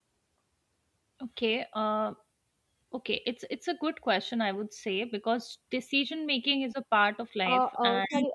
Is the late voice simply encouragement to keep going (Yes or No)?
No